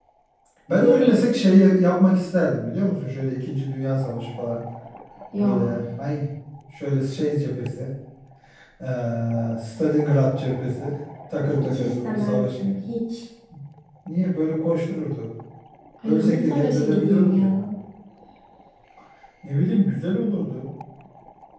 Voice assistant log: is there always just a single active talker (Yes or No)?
No